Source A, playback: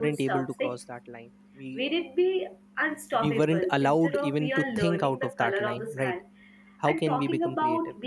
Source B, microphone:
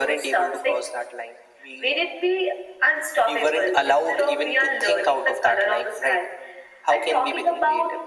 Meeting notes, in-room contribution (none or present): none